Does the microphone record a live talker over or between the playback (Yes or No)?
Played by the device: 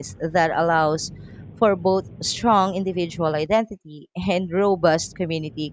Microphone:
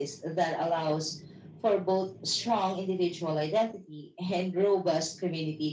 No